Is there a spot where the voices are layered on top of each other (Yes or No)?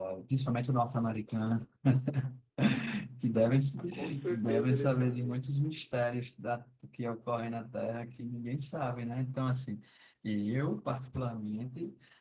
Yes